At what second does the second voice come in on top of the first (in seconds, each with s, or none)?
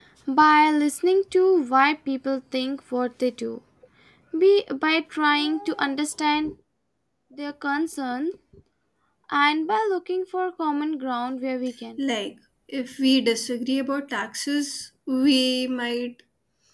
none